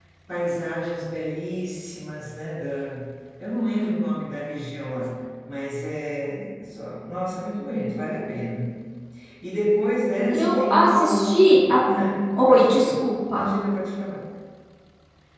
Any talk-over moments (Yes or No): Yes